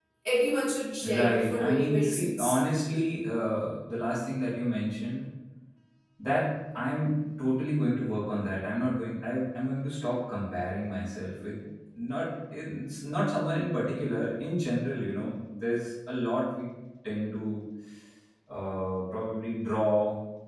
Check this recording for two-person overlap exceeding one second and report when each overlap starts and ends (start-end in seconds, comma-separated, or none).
1.0-2.6